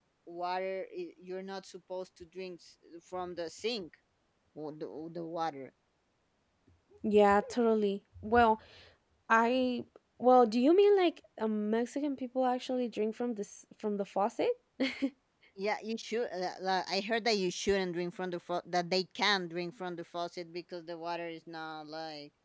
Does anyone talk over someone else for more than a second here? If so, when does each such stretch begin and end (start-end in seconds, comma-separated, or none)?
none